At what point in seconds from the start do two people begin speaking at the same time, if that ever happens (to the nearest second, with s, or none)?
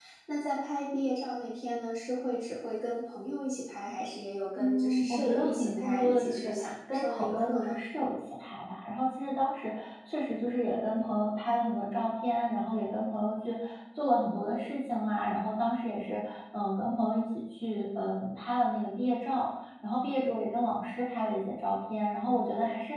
5 s